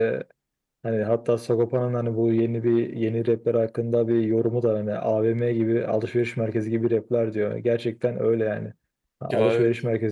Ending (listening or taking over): listening